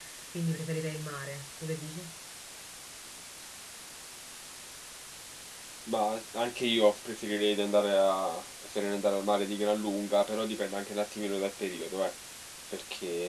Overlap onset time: none

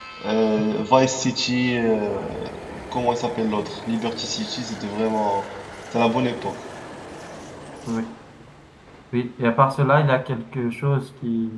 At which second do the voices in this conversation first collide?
none

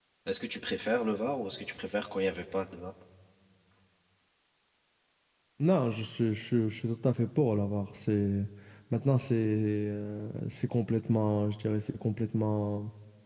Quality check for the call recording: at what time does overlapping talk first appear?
none

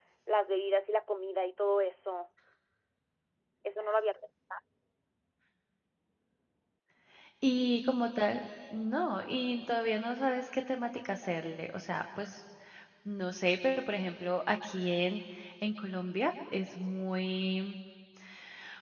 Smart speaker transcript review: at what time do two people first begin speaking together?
none

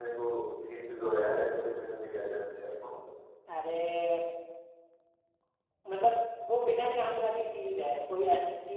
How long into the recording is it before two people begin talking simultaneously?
none

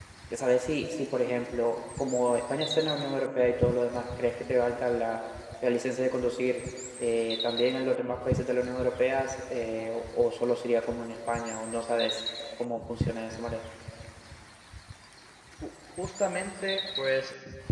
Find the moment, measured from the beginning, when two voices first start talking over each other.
none

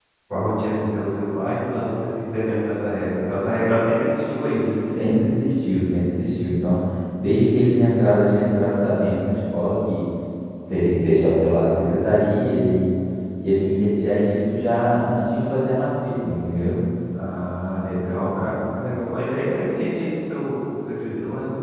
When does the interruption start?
none

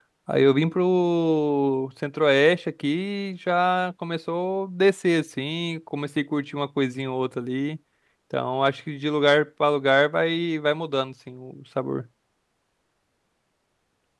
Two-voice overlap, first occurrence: none

